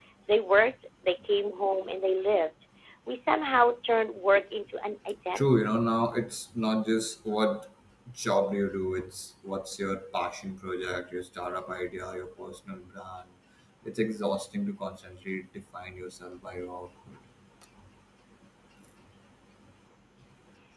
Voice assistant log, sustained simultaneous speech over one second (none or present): none